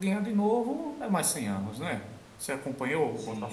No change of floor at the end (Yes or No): No